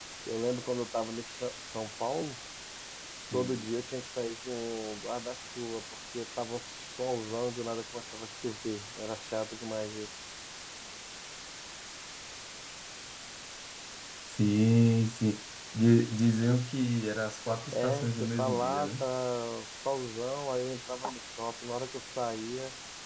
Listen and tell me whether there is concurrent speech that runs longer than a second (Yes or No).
Yes